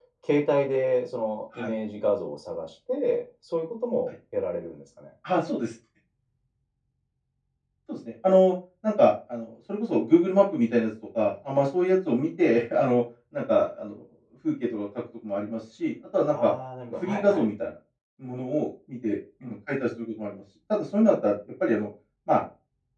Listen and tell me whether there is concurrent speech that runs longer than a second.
No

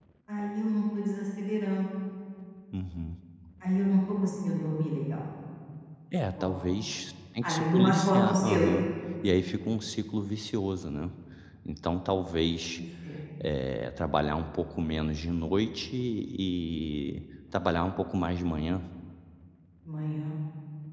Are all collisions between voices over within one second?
No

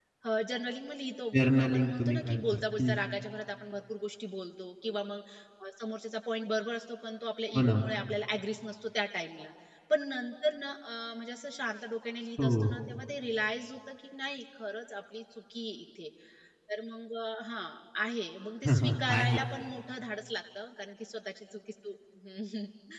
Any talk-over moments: Yes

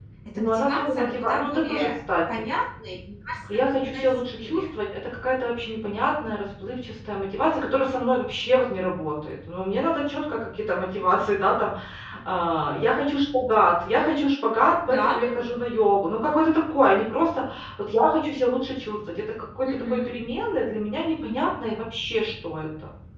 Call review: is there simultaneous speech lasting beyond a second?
Yes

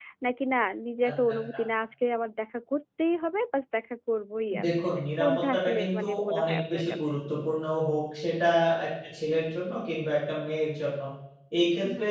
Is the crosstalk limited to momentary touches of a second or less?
No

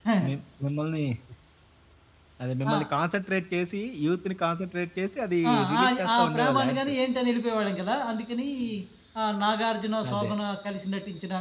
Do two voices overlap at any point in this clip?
Yes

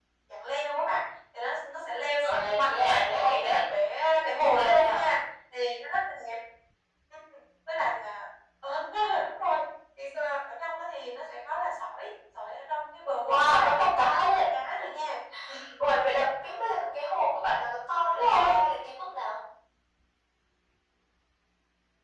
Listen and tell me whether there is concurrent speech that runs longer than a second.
Yes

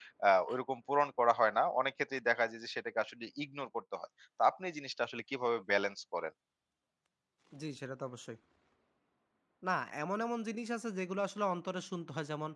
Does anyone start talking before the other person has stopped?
No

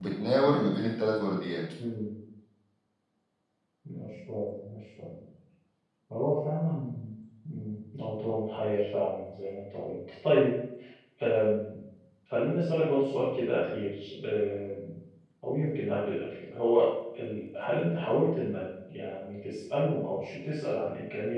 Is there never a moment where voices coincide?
Yes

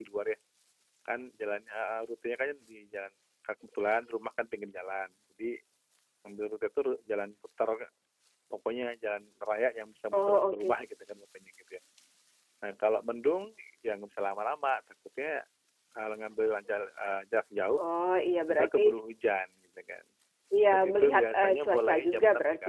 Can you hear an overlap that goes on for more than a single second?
Yes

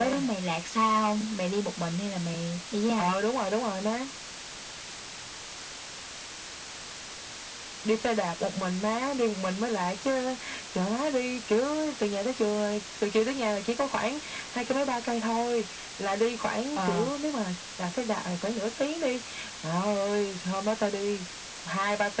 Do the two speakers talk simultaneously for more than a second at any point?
No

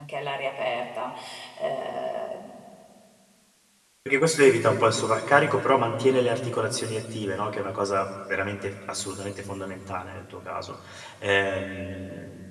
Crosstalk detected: No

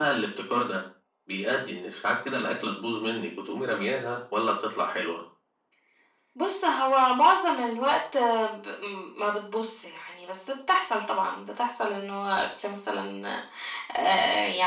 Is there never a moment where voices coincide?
Yes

